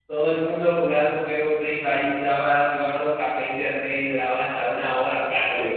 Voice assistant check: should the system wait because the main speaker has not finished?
No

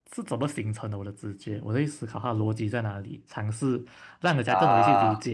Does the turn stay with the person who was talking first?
Yes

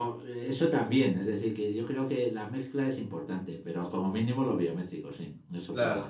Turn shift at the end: Yes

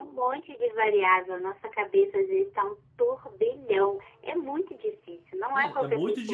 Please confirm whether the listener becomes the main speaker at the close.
Yes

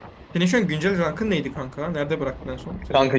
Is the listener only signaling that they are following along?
No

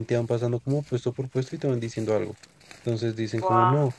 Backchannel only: Yes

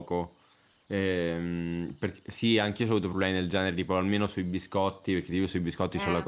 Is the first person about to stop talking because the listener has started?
No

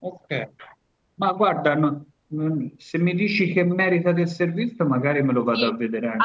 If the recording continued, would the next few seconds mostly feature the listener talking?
Yes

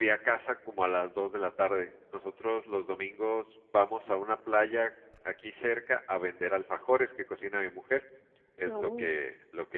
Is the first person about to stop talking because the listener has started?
No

